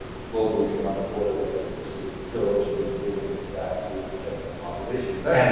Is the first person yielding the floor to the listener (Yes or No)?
Yes